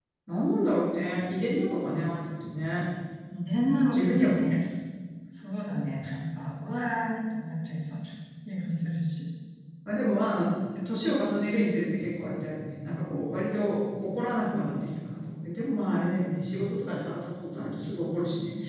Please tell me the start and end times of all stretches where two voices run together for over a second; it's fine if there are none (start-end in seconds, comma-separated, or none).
3.3-4.6